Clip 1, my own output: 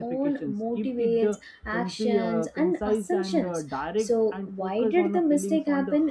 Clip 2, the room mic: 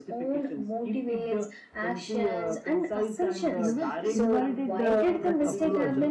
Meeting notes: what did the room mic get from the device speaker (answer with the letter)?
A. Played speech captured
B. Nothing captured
A